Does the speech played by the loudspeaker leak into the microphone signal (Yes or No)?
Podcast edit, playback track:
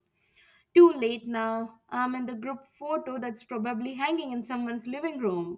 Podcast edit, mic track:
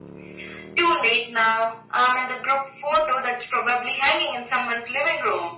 Yes